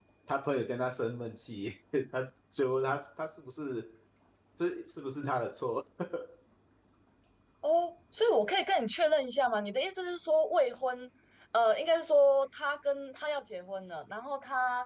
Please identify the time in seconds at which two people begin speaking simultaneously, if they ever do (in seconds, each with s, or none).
none